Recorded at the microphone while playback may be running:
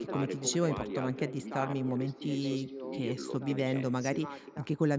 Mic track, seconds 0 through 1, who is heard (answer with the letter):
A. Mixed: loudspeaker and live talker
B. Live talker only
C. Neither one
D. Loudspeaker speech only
A